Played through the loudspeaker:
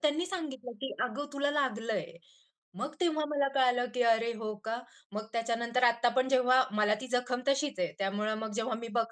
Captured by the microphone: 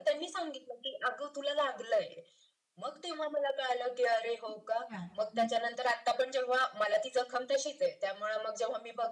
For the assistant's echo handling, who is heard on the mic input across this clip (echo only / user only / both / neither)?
both